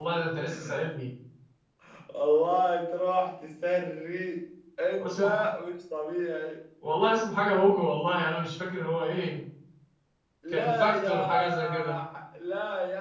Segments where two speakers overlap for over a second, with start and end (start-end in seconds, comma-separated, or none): 10.5-12.0